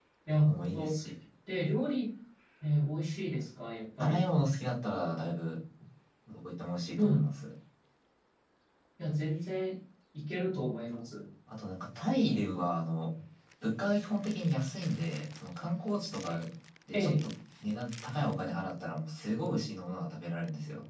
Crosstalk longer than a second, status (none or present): none